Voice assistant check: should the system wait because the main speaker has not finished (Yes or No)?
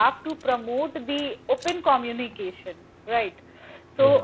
Yes